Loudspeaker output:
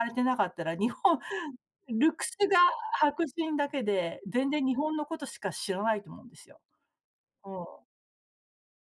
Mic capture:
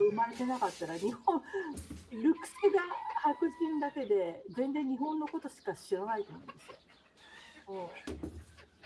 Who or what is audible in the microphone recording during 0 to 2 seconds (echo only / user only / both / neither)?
echo only